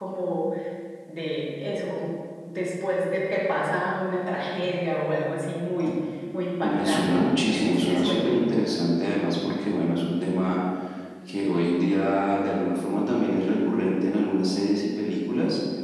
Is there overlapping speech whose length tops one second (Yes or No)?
Yes